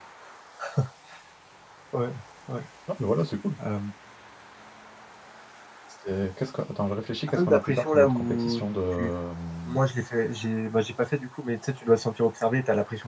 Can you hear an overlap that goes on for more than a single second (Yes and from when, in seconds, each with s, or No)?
Yes, from 7.3 s